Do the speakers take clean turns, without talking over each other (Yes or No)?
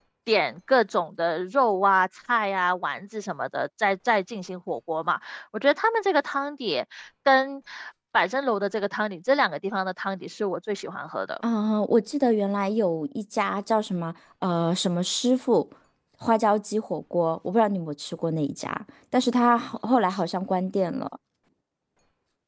Yes